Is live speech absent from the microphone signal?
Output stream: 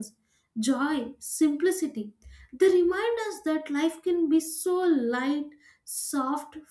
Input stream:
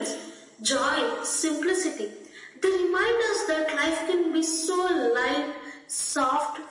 Yes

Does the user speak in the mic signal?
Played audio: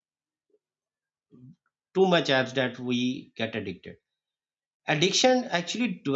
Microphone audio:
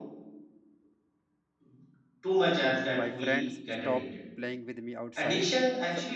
Yes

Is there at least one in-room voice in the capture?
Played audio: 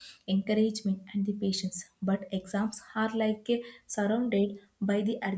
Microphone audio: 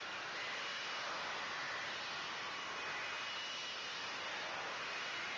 No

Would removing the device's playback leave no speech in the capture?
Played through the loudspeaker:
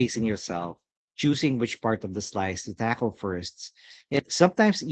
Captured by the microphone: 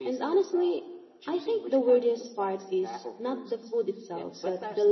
No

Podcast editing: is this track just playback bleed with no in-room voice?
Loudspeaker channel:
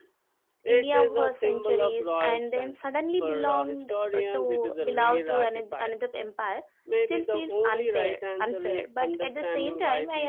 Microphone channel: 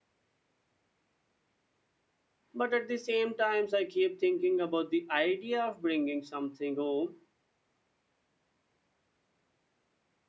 No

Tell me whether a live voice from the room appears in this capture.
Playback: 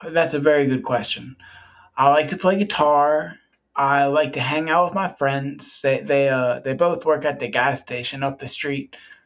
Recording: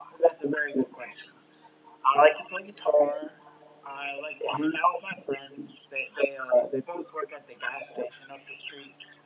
No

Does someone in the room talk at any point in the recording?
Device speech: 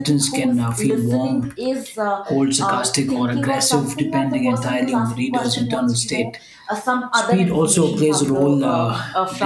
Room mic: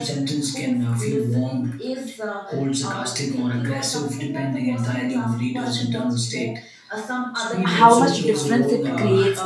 Yes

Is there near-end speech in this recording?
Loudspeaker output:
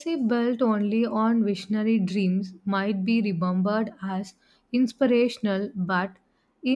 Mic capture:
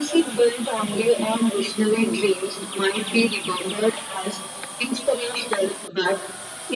No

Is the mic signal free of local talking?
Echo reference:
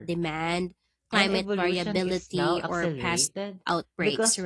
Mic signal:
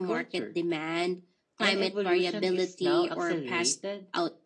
Yes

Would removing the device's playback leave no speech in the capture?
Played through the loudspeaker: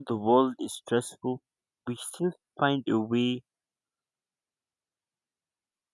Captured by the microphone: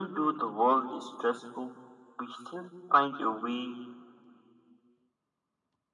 Yes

